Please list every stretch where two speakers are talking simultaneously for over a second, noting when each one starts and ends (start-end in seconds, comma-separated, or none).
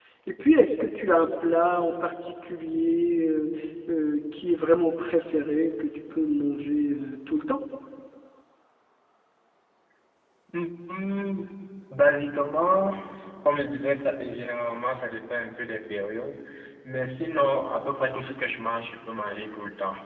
none